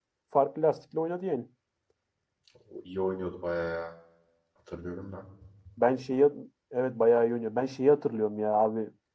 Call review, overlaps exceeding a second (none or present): none